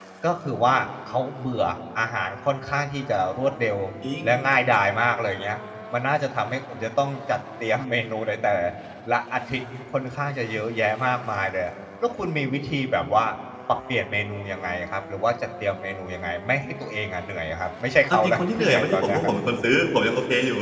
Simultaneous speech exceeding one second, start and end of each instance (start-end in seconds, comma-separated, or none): 18.1-19.3